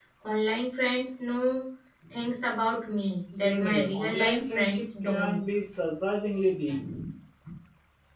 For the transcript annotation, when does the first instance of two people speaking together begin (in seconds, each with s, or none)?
3.4 s